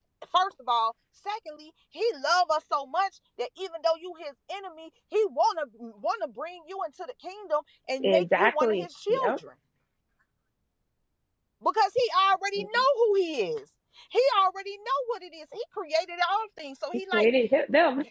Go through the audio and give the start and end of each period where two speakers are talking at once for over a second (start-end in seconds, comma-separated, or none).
8.0-9.3